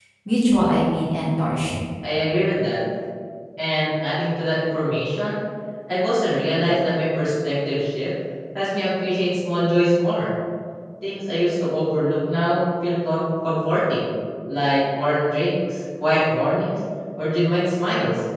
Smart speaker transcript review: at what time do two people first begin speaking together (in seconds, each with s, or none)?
none